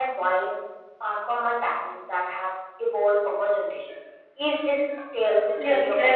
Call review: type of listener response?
taking over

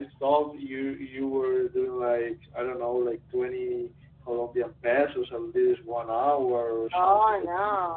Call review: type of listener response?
taking over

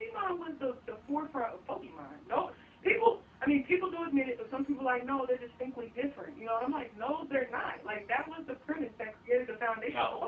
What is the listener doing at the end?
listening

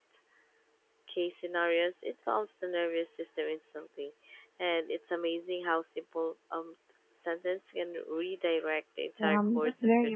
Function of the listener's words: taking over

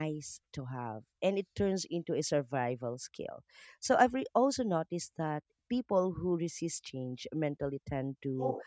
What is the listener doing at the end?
listening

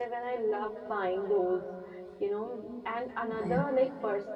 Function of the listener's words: listening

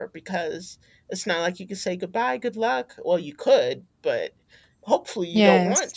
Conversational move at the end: listening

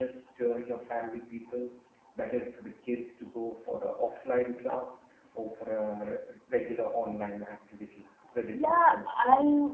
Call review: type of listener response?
taking over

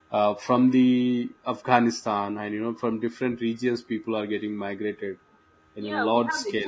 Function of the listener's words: taking over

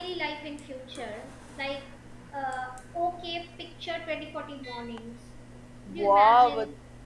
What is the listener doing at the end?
taking over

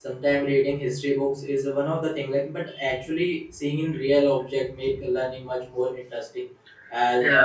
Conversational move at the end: listening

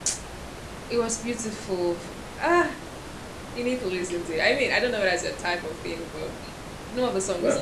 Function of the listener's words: listening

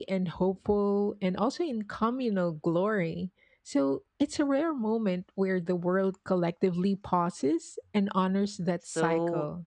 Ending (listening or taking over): taking over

